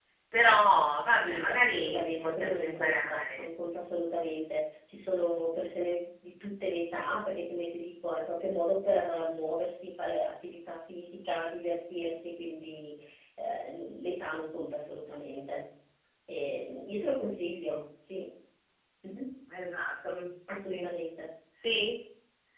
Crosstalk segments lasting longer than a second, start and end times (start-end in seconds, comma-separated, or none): 1.1-3.4